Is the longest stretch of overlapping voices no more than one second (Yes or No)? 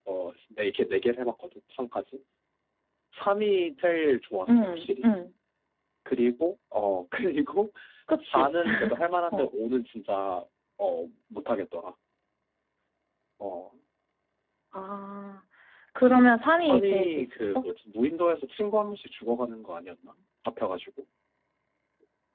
No